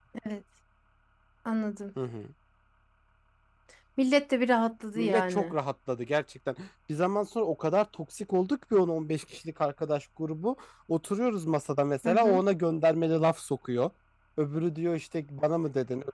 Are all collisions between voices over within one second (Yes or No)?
Yes